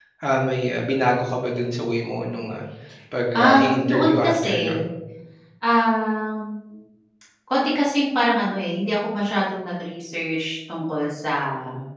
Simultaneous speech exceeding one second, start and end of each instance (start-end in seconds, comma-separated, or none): 3.3-4.8